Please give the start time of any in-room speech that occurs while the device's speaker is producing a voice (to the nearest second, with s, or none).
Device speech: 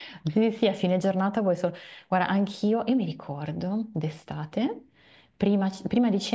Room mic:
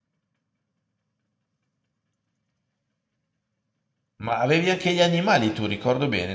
4 s